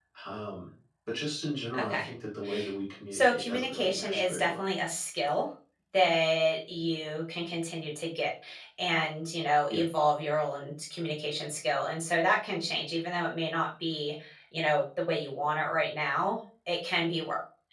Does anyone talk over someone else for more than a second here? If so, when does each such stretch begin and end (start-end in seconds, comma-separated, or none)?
3.1-4.5